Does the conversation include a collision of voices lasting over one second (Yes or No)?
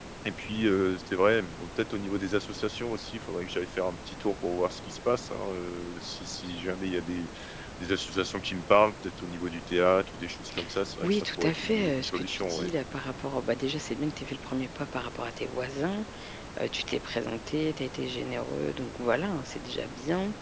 Yes